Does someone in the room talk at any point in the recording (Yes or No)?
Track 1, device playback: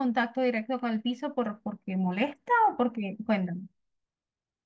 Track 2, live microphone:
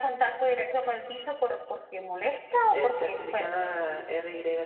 Yes